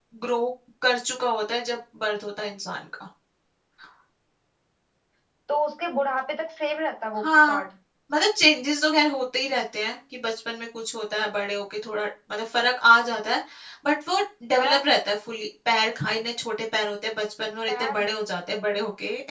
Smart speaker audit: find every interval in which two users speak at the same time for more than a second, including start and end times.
none

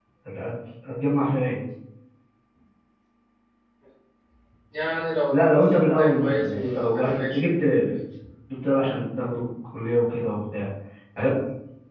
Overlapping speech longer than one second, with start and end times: 5.3-7.5

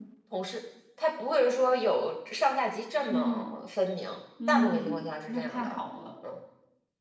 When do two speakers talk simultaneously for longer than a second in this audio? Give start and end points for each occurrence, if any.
4.5-5.8

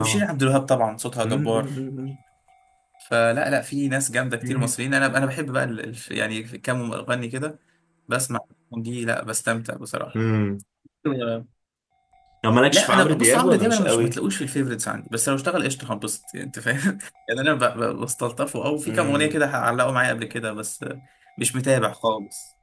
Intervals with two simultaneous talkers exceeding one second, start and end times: 12.7-14.2

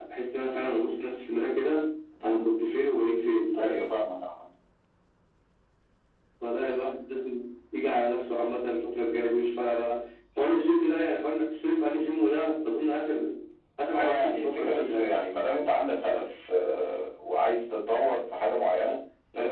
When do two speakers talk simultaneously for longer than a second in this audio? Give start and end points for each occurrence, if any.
13.9-15.1

